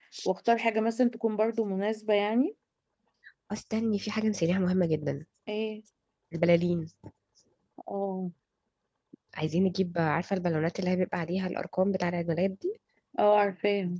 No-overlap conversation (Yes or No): Yes